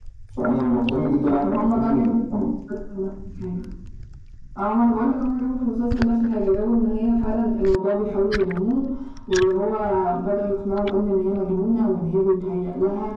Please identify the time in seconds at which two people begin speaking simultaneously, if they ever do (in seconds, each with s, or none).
1.2 s